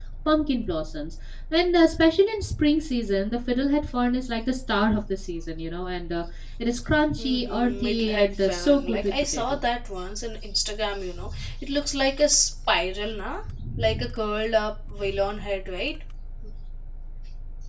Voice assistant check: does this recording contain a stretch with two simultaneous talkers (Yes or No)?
Yes